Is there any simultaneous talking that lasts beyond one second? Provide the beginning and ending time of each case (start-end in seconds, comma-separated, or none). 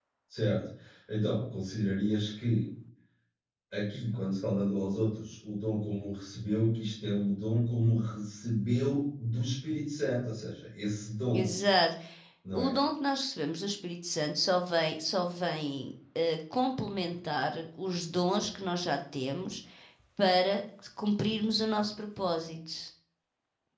none